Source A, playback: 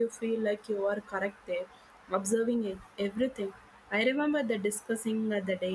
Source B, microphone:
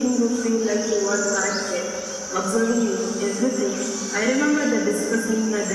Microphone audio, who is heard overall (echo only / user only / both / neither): echo only